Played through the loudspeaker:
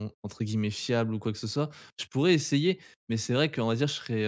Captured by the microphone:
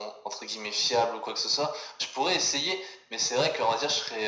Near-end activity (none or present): none